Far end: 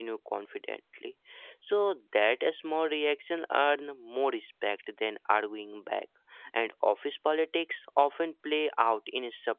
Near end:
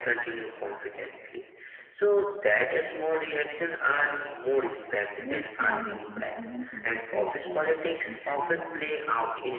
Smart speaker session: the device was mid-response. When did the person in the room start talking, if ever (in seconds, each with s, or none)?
5.2 s